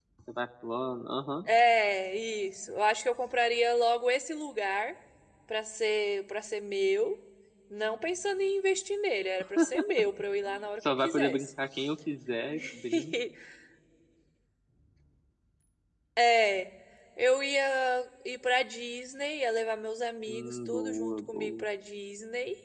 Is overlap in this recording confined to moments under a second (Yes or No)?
No